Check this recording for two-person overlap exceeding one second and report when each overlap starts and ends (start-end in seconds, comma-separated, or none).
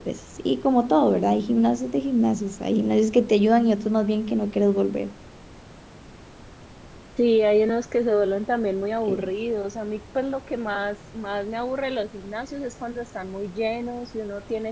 none